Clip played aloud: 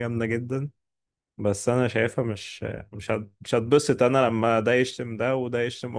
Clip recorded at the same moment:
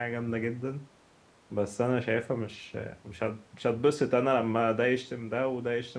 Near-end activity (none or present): none